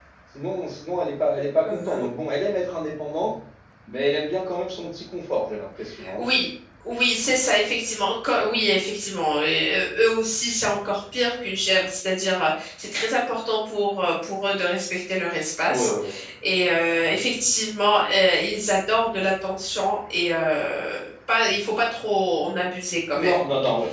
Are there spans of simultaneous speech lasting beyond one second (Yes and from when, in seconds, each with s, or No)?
No